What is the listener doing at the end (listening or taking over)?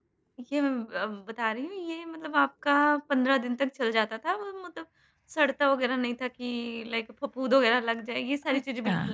taking over